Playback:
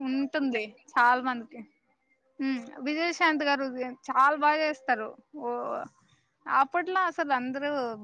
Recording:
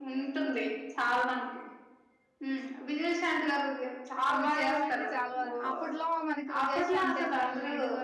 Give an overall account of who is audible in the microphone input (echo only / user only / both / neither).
both